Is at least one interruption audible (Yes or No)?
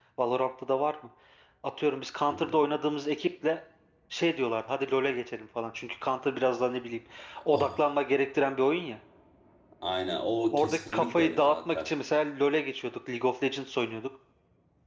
Yes